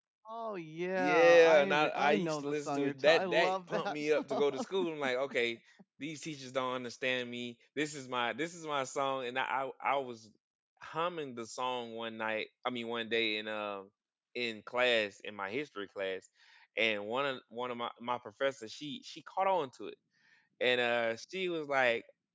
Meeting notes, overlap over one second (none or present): present